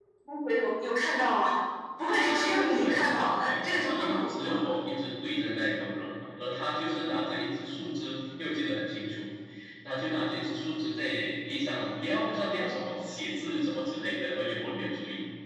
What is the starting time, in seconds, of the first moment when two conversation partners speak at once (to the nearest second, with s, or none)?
2 s